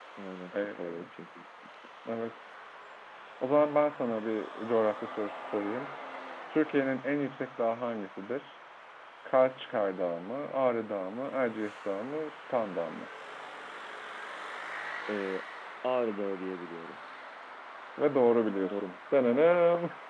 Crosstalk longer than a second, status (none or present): none